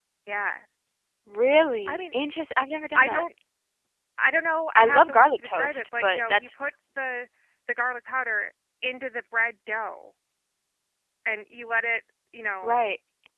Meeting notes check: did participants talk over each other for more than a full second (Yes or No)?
Yes